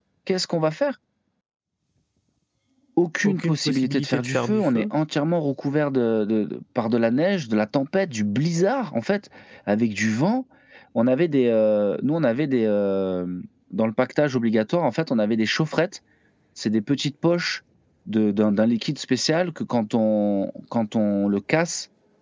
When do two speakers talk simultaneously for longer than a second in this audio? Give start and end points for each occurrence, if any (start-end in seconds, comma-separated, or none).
3.2-4.8